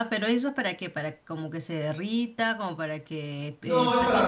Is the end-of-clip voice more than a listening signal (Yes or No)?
Yes